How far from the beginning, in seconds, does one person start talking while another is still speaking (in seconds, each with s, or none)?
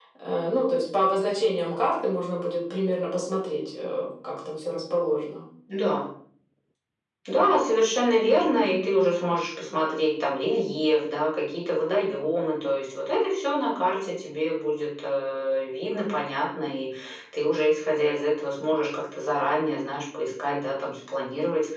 none